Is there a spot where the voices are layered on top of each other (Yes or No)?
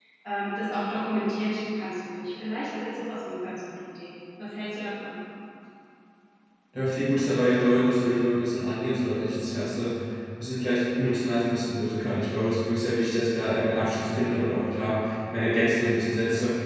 No